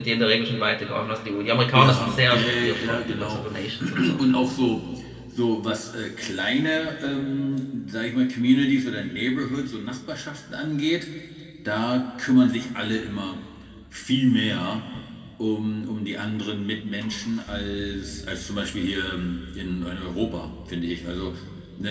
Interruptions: present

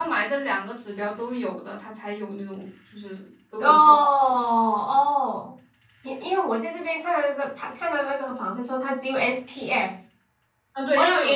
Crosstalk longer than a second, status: none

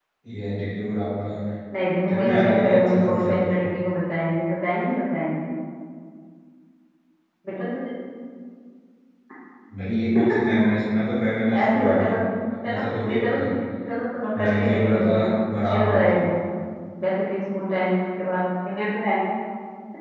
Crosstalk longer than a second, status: present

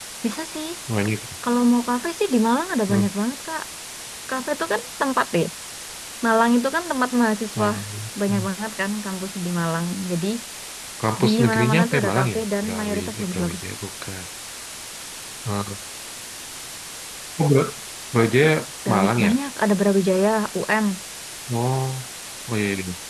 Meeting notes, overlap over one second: present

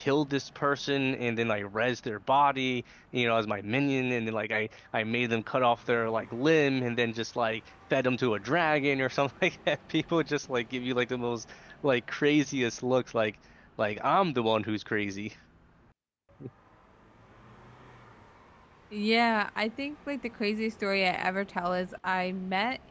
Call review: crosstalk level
none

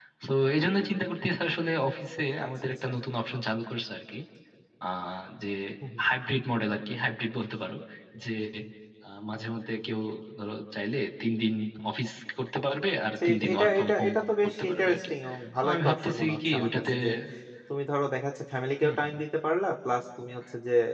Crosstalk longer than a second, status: present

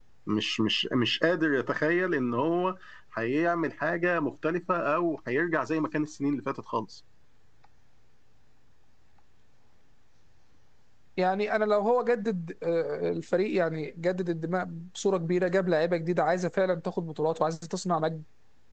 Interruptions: none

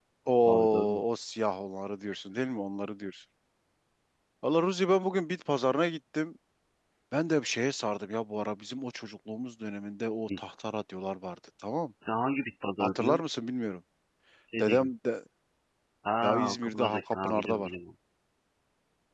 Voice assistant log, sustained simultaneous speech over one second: present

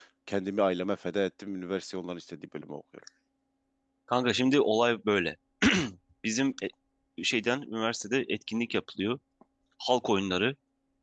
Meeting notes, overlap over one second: none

